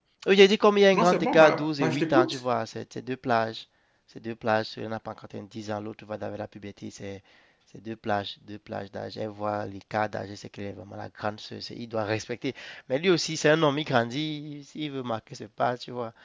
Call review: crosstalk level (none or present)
present